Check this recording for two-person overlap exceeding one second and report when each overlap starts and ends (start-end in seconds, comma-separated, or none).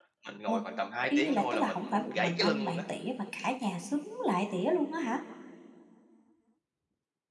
1.1-2.8